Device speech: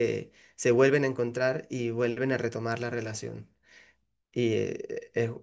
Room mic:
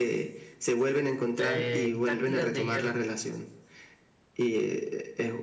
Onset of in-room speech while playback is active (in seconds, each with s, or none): 1.4 s